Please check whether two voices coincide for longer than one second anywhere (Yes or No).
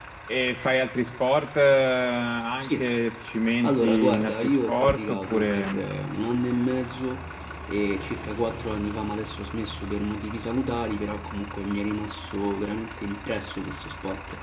Yes